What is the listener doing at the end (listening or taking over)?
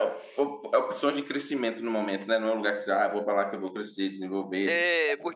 taking over